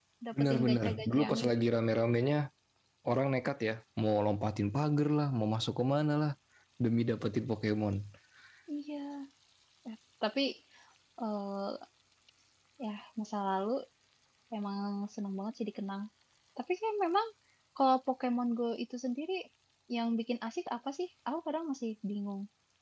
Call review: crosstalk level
present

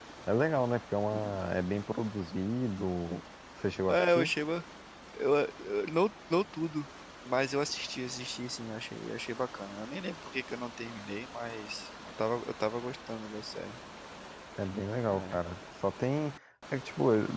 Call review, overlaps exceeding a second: none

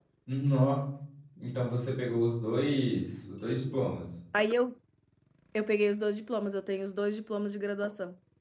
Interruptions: none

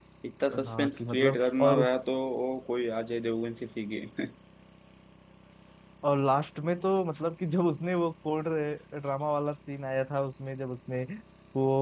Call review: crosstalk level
present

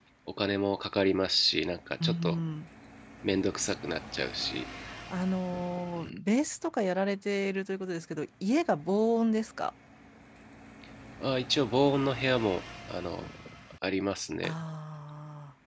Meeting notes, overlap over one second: none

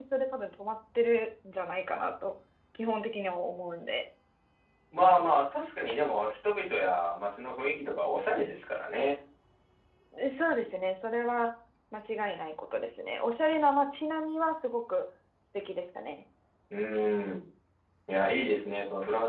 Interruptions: none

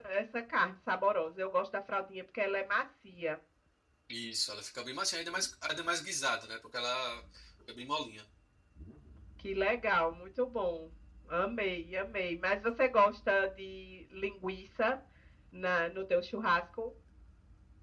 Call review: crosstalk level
none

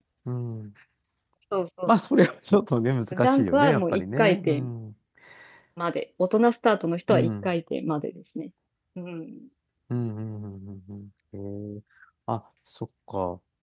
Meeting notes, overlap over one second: present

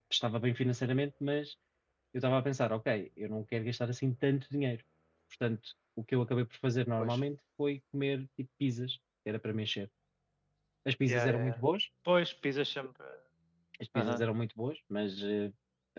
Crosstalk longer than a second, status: none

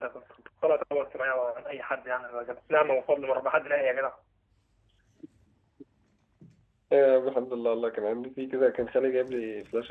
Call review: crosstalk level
none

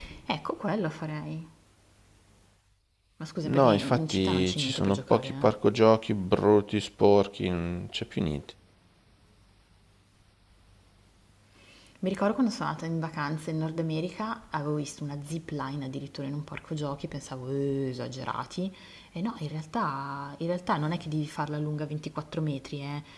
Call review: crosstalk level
present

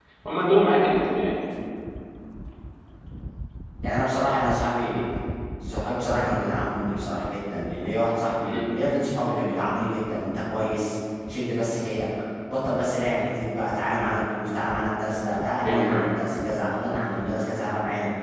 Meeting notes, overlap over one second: none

